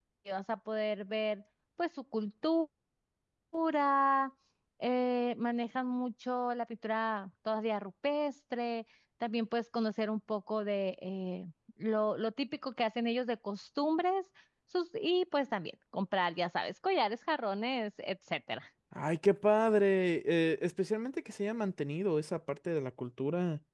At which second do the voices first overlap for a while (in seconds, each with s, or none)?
none